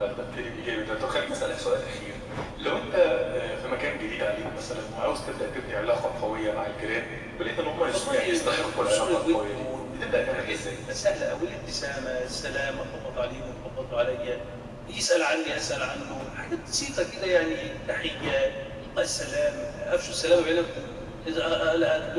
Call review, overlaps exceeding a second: present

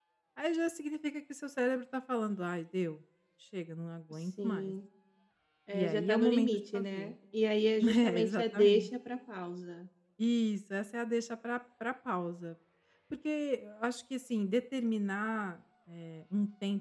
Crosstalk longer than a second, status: present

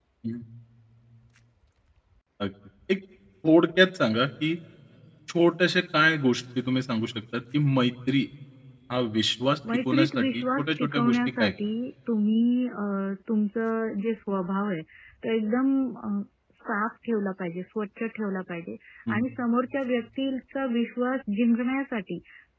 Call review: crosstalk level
present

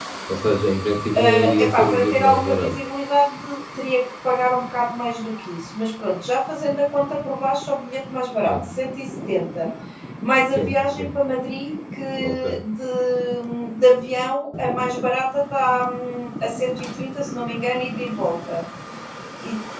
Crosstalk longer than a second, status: present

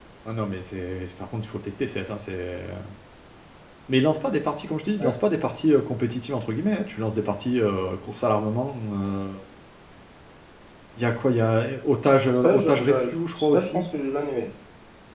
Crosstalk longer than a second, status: present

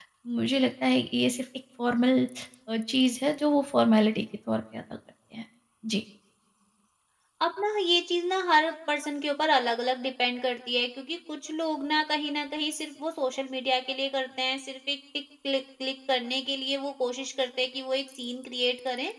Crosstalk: none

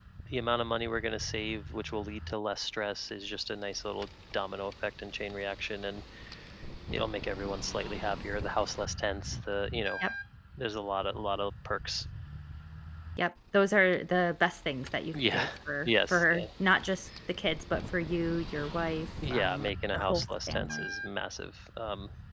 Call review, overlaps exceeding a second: present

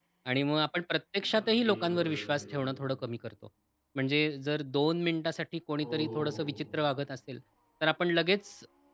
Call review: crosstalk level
present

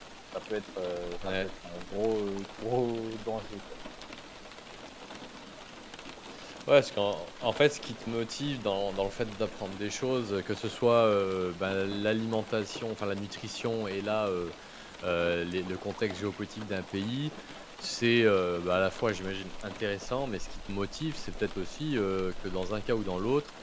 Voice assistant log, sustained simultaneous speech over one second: none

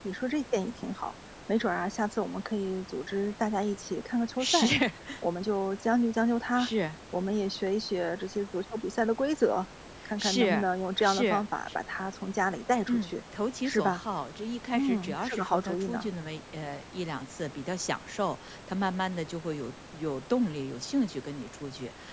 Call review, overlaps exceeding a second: present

